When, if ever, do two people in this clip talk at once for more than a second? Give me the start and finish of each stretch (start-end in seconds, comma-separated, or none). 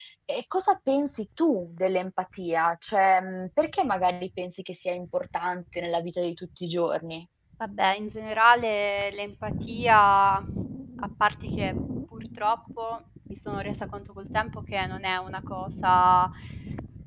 none